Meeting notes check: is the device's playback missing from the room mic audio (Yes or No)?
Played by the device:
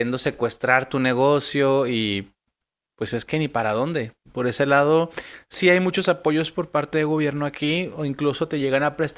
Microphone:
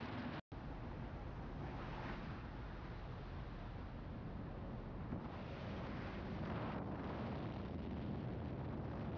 Yes